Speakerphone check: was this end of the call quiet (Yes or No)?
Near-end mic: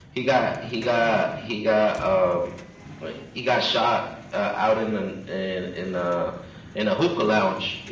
Yes